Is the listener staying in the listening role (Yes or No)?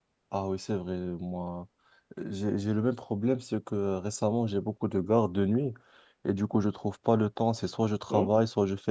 Yes